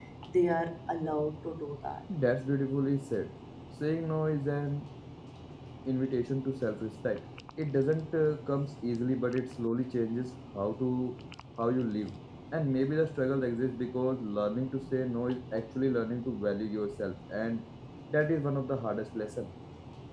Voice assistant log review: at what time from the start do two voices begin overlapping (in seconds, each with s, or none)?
none